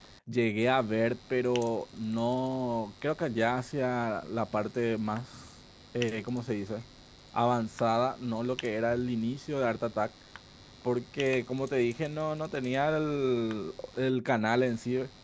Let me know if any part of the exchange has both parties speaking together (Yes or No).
No